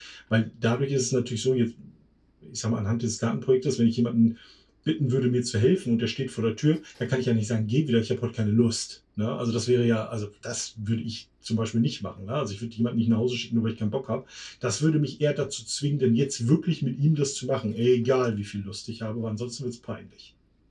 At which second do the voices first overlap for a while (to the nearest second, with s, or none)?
none